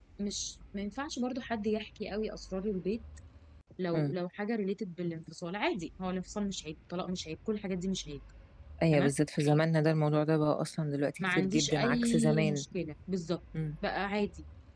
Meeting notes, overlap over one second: present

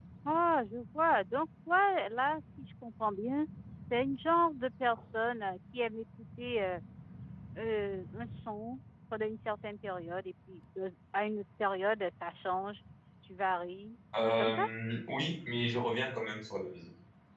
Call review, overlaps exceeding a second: none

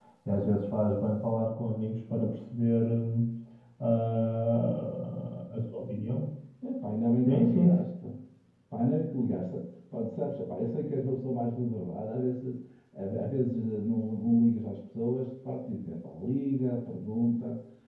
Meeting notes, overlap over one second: none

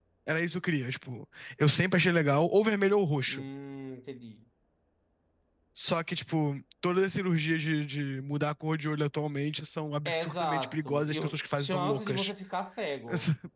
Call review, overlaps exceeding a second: present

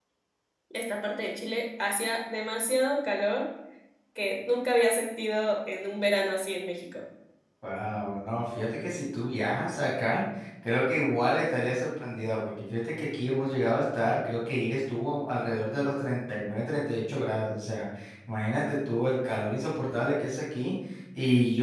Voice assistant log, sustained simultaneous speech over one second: none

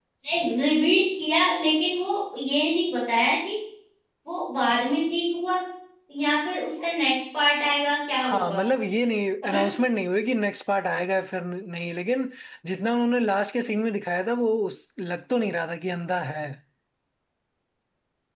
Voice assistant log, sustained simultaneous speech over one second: none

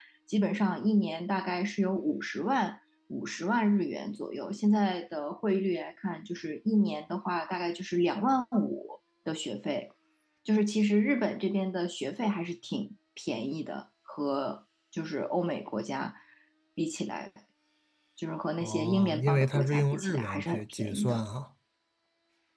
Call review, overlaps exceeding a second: present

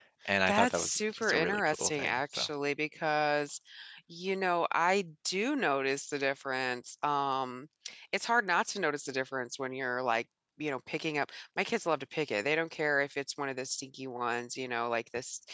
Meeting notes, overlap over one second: present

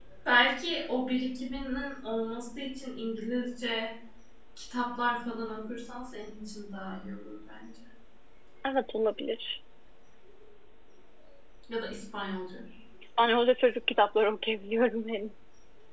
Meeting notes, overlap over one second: none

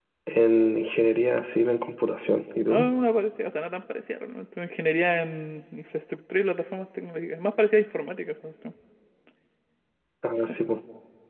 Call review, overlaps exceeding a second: none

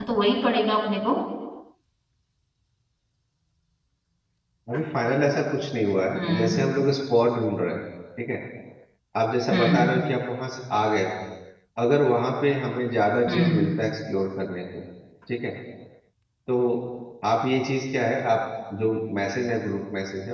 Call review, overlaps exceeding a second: none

